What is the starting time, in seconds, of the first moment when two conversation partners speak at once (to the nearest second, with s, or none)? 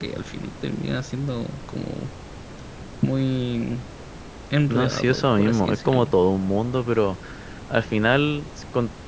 5 s